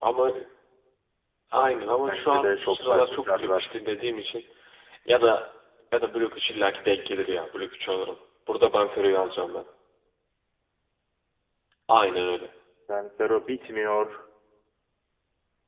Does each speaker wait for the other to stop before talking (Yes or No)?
No